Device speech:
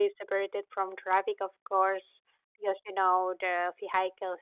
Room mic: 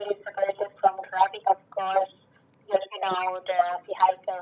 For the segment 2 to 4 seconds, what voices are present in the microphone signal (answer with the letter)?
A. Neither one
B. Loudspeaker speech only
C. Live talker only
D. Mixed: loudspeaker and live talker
B